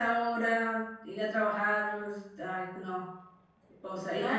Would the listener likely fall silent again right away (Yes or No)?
Yes